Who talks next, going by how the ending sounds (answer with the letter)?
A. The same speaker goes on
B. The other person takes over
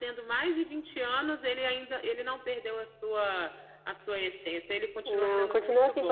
B